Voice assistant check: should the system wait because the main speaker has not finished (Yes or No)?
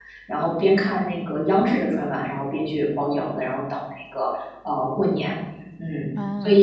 No